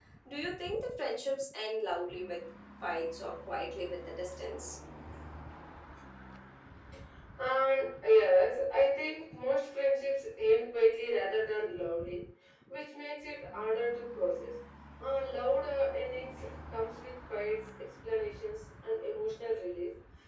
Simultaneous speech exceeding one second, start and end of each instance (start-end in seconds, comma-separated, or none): none